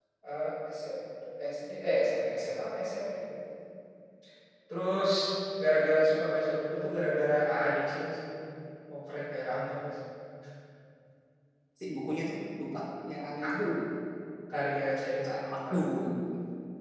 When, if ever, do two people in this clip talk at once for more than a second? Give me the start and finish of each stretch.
none

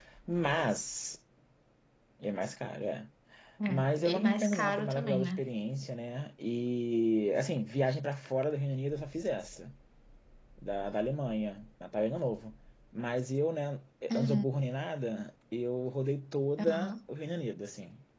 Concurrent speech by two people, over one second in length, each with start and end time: 3.7-5.4

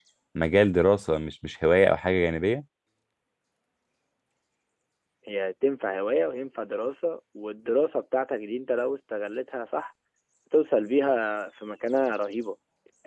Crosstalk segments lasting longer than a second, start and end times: none

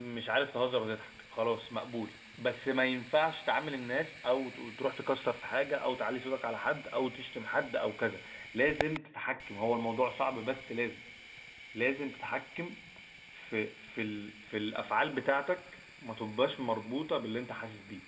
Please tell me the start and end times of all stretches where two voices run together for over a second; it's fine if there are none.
none

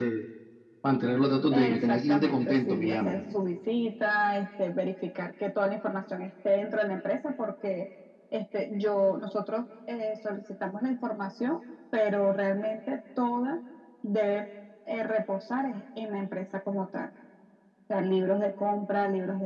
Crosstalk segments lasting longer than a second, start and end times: 1.5-3.2

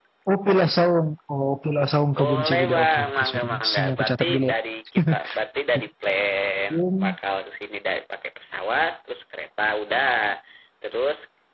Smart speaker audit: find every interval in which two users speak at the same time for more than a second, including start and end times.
2.2-4.5

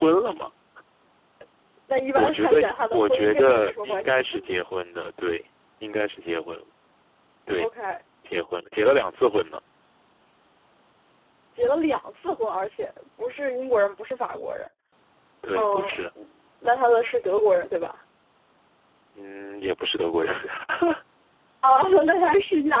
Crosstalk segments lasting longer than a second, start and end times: 2.2-4.2

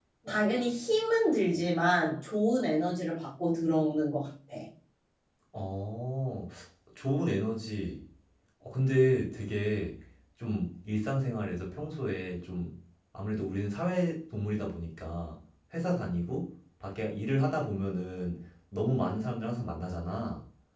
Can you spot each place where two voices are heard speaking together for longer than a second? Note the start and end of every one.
none

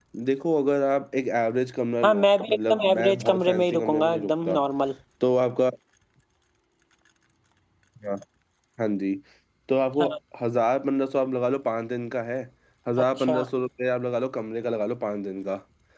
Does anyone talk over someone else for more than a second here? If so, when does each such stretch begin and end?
2.0-4.6

